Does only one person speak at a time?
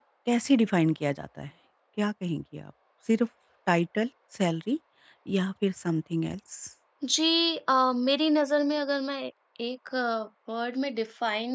Yes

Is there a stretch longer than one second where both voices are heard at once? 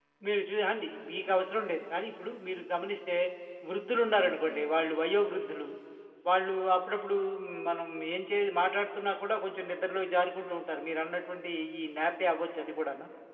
No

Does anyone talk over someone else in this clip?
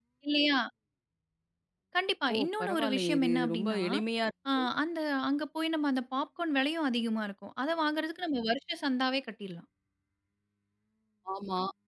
Yes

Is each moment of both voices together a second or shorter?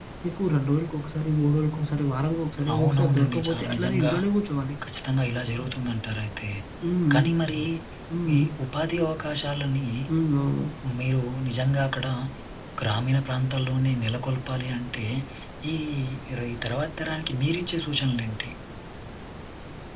No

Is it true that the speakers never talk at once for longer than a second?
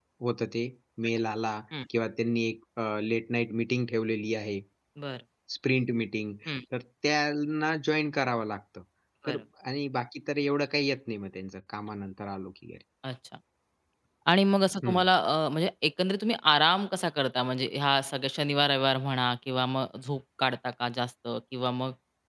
Yes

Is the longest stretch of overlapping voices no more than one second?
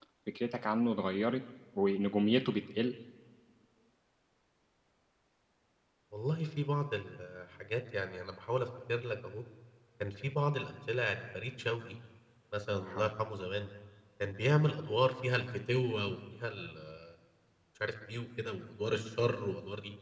Yes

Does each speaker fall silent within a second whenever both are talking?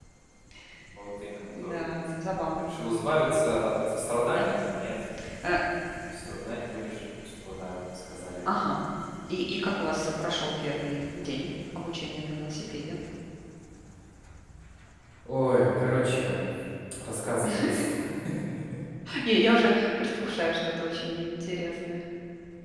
Yes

